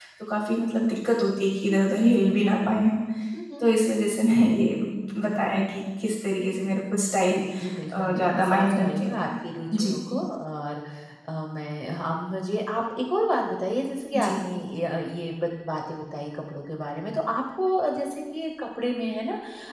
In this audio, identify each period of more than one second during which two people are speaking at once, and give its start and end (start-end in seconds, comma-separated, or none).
7.9-9.3